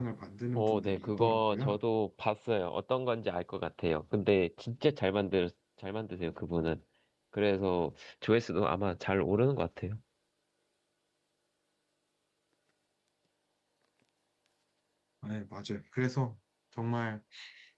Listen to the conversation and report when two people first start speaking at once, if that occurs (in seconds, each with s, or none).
0.6 s